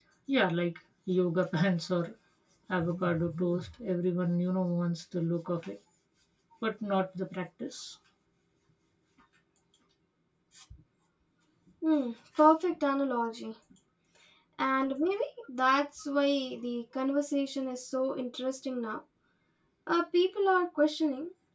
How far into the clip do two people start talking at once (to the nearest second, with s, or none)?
none